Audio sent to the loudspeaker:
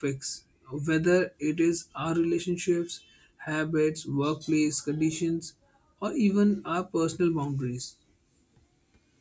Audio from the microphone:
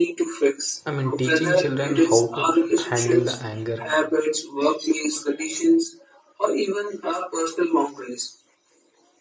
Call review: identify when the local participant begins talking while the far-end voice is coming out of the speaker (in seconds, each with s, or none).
0.9 s